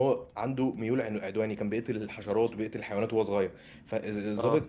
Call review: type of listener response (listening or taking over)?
listening